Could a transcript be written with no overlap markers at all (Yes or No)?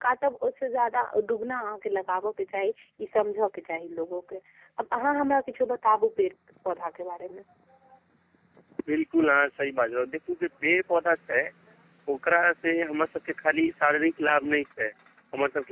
Yes